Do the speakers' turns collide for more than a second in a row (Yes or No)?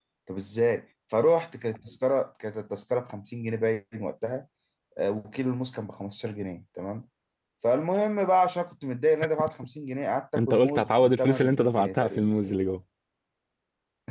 Yes